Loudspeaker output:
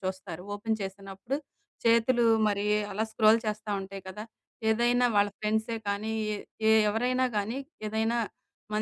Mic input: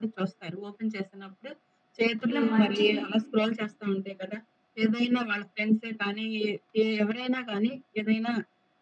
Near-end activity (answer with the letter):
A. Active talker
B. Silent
A